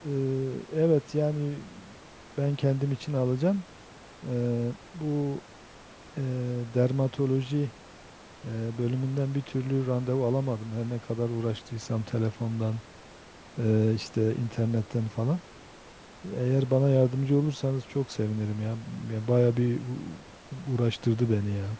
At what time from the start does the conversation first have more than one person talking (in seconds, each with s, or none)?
none